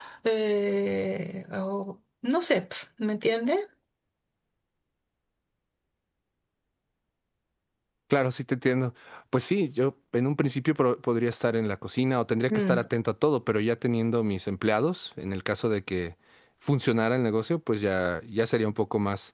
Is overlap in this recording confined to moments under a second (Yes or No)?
Yes